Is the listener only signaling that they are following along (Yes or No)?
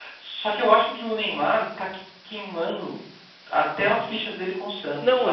No